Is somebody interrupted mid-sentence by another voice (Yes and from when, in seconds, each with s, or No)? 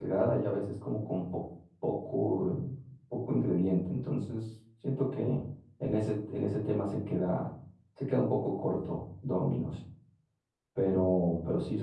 No